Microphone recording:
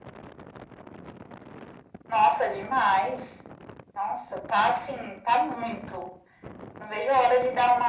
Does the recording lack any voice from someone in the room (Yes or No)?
Yes